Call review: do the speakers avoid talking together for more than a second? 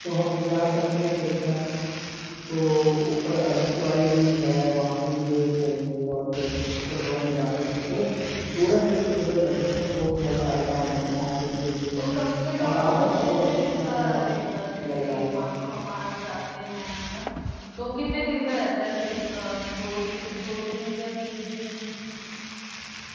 No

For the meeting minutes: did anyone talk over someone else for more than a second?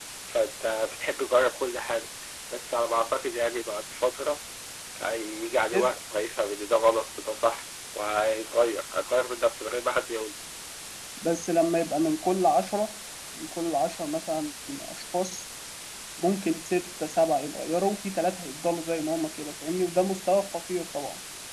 No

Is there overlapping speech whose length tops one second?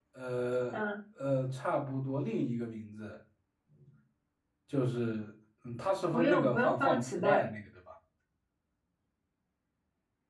Yes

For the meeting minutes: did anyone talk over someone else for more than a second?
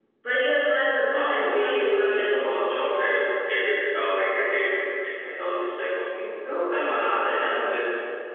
Yes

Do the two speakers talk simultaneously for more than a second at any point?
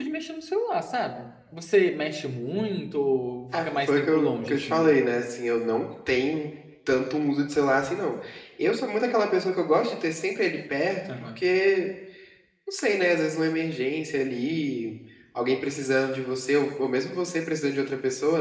Yes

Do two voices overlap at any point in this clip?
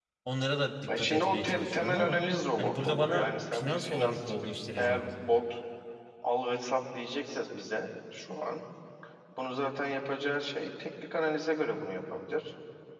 Yes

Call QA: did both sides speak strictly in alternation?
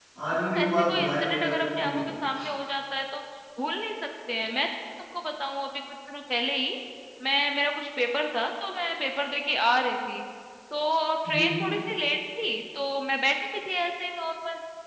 No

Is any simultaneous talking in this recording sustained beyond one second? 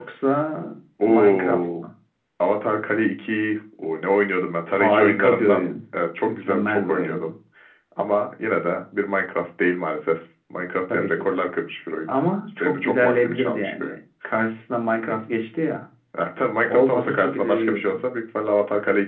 Yes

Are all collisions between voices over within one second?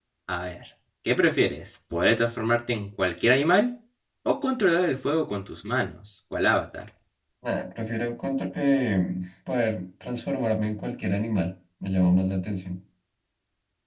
Yes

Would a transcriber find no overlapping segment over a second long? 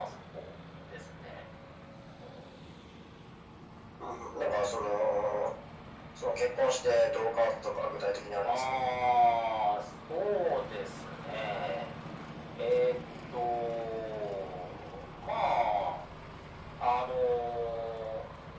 Yes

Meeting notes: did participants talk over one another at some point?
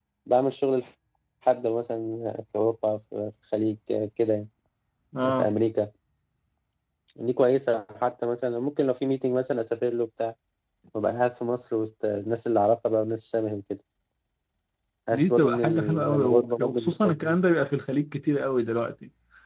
Yes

